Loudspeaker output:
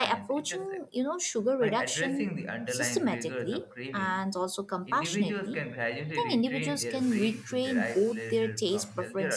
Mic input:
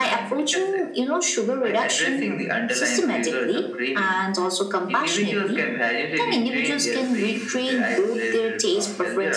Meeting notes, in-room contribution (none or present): none